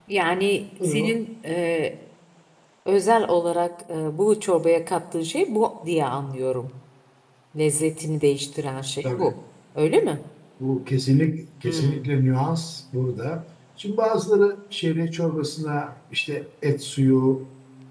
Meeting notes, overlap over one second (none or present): none